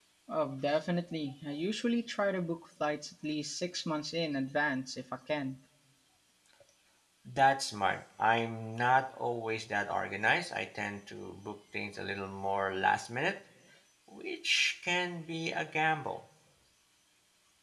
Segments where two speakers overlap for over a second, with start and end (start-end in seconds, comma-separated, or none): none